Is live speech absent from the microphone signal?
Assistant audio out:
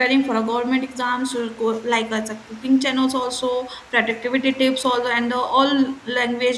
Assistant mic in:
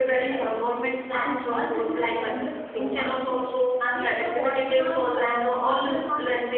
No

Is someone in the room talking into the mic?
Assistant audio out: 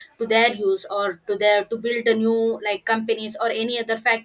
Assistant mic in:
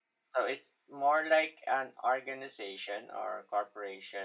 Yes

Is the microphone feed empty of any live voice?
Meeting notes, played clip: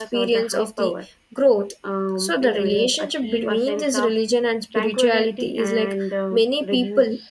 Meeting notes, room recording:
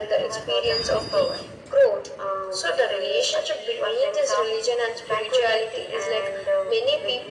Yes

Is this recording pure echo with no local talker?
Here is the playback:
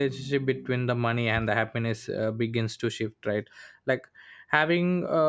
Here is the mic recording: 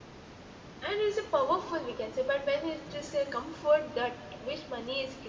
No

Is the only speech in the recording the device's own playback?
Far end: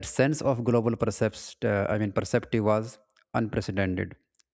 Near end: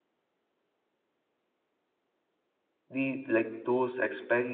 No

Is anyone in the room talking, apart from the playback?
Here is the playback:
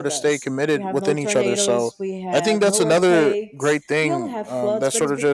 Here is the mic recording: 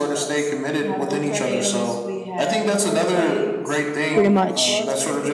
Yes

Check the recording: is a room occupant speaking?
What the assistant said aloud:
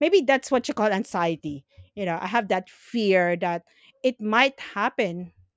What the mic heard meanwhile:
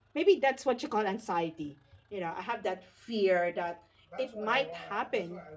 Yes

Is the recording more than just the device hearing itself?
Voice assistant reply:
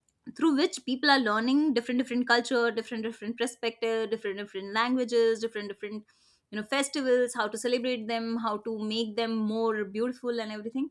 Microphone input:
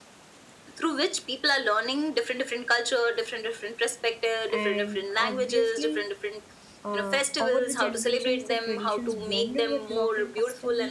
Yes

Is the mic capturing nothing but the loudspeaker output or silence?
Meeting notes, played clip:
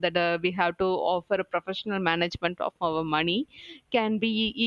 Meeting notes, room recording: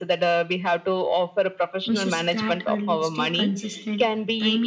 No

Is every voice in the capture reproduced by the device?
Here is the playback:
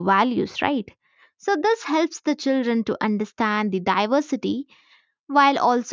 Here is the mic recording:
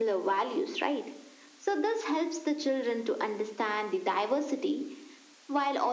Yes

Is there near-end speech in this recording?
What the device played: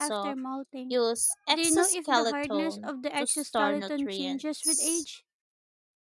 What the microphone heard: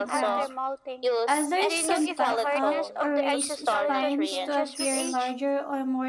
Yes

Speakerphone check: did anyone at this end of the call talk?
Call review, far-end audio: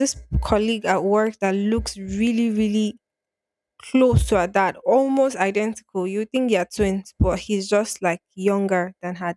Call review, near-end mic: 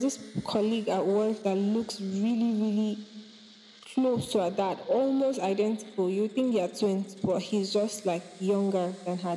No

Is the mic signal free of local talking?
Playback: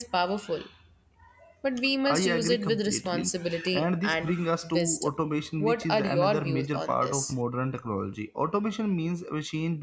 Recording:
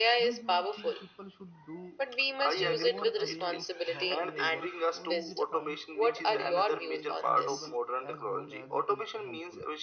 No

